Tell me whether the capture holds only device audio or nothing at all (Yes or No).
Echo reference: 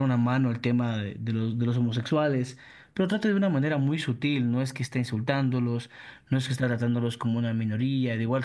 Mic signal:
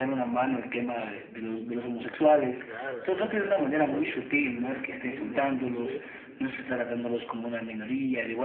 No